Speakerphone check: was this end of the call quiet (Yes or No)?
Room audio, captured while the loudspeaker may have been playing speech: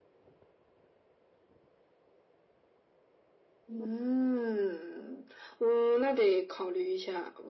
Yes